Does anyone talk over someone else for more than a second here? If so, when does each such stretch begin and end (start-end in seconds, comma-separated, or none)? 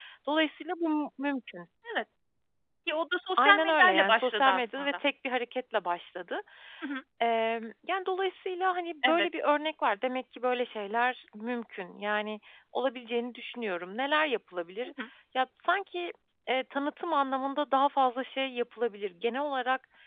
3.4-5.0